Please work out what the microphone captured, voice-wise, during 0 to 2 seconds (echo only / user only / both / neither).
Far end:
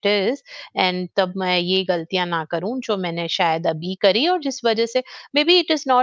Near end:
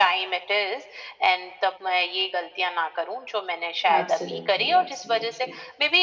echo only